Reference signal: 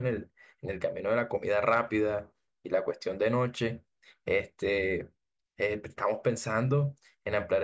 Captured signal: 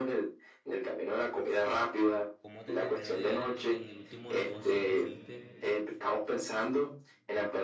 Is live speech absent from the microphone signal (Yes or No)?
No